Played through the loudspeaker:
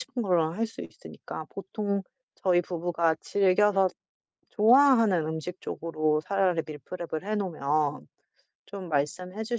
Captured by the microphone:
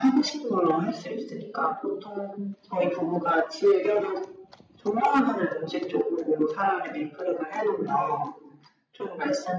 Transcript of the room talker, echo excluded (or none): none